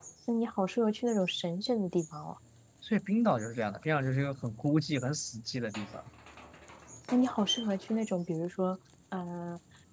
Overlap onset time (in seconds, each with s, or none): none